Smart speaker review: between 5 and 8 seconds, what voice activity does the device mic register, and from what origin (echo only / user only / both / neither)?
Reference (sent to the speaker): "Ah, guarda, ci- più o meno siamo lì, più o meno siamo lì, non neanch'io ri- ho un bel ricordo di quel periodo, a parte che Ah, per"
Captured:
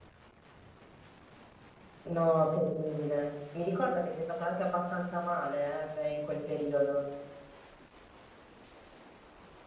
user only